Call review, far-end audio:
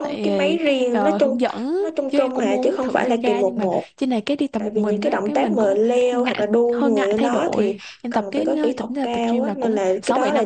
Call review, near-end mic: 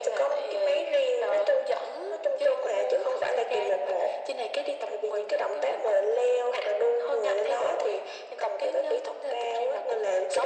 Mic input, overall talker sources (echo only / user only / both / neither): echo only